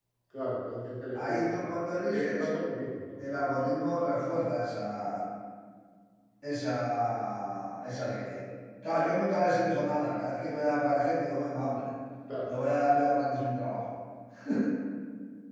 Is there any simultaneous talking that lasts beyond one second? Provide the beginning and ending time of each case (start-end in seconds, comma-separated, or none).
1.2-2.5